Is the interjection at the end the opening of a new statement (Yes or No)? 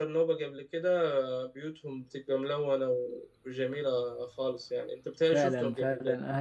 Yes